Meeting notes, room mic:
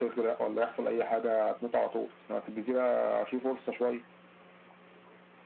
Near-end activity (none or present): none